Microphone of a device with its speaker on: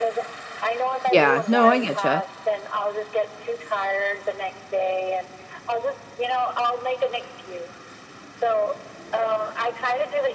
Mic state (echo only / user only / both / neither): both